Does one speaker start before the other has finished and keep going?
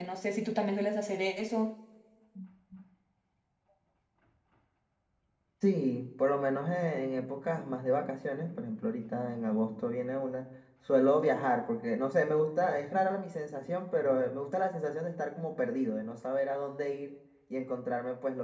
No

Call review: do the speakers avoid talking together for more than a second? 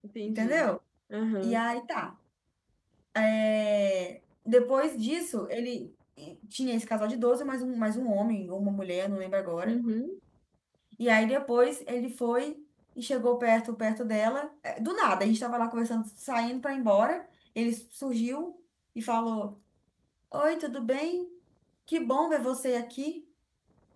Yes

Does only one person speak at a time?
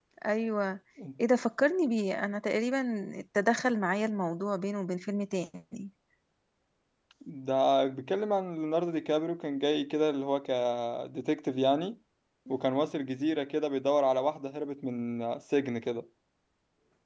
Yes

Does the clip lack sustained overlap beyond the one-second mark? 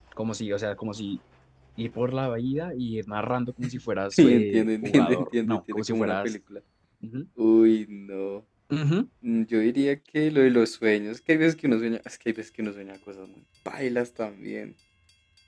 No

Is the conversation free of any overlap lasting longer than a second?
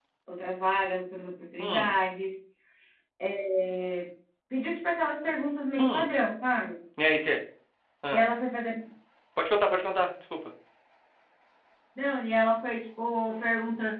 Yes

